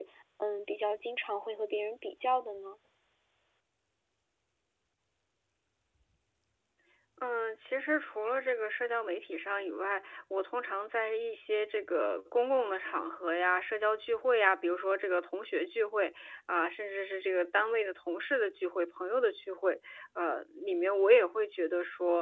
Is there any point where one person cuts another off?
No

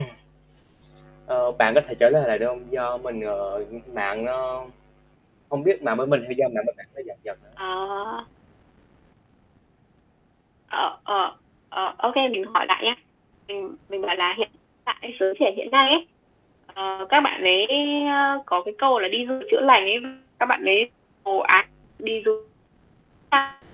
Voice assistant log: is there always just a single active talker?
Yes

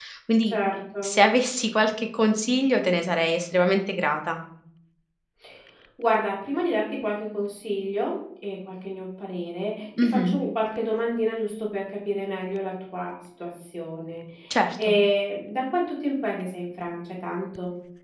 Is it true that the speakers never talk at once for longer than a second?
Yes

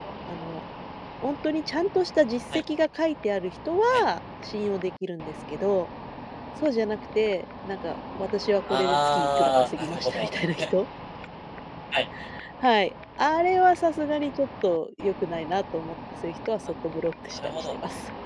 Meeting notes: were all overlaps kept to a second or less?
No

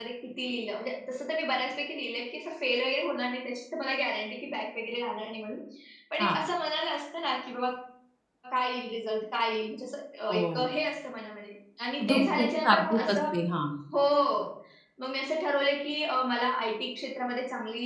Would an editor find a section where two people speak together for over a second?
Yes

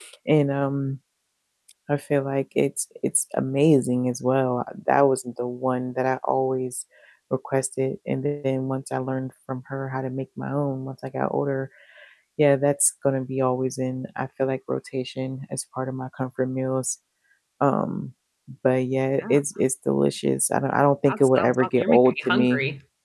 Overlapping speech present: Yes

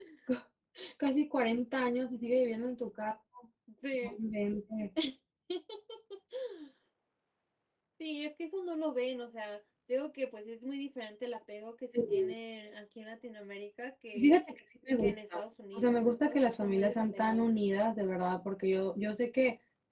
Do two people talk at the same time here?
Yes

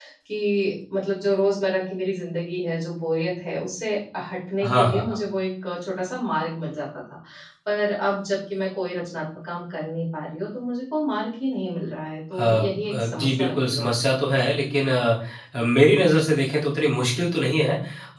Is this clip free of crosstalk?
No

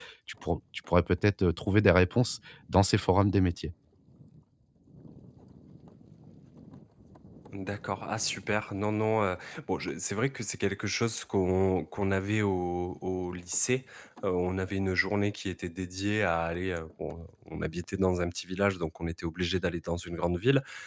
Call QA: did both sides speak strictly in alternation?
Yes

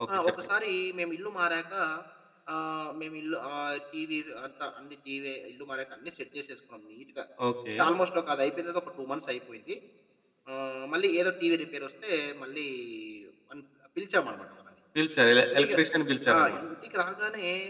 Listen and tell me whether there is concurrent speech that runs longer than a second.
No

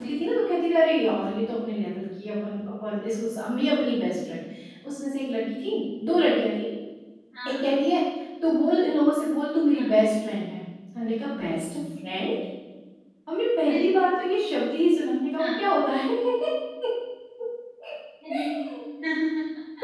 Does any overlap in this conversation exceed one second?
No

